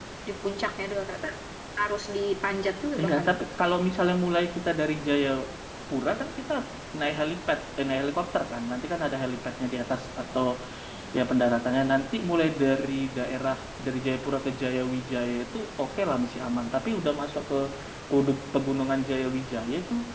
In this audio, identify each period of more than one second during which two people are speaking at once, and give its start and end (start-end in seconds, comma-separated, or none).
none